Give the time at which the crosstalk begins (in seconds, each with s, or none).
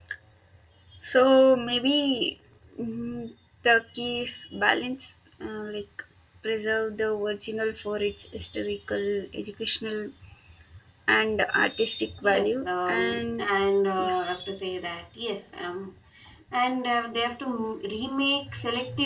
12.2 s